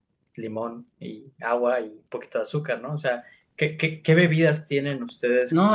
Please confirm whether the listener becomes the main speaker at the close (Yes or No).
Yes